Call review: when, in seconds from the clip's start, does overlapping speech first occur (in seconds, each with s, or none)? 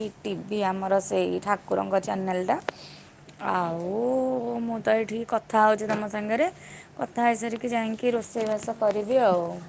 none